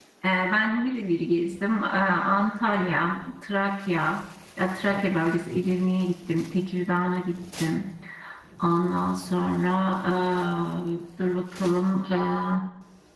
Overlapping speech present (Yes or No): No